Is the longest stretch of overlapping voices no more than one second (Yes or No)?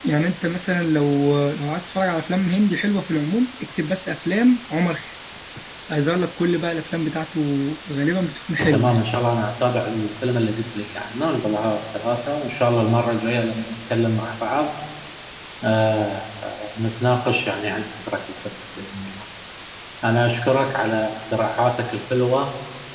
Yes